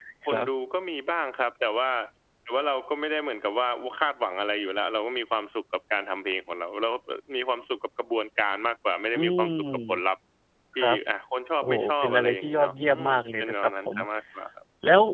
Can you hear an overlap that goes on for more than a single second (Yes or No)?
Yes